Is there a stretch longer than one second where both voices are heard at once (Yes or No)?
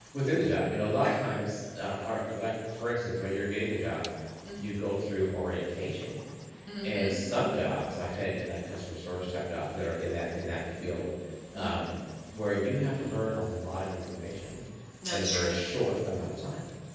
No